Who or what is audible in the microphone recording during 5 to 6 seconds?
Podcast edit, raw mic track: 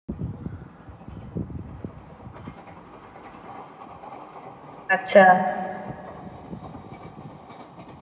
user only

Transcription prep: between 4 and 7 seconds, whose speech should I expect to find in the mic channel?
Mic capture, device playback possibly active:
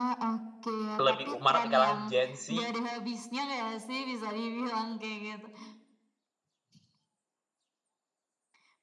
echo only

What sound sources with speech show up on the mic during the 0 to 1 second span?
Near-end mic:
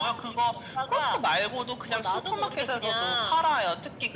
echo only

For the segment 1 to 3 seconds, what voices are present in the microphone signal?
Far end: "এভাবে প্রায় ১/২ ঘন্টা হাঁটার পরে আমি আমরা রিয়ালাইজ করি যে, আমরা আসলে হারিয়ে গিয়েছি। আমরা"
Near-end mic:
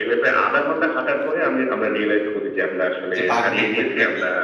echo only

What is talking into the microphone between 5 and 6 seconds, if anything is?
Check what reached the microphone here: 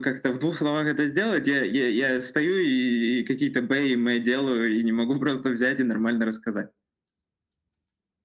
echo only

